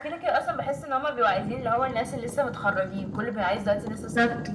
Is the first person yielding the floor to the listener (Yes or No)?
Yes